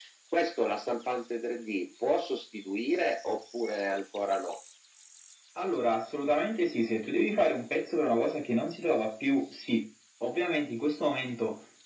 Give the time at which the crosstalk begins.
none

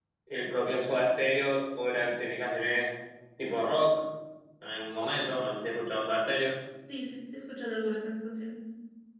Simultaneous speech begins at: none

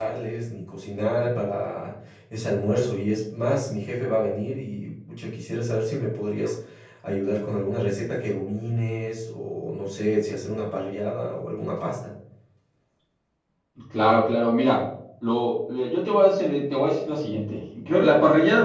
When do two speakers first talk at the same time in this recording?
none

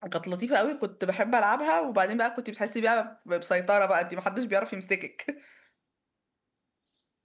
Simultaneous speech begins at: none

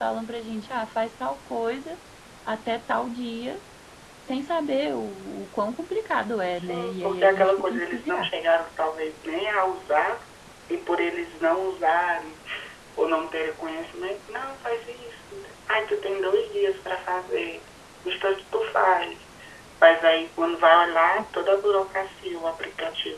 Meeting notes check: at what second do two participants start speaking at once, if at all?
6.5 s

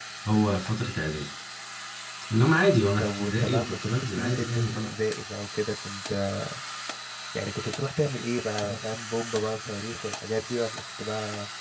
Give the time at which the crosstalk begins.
3.0 s

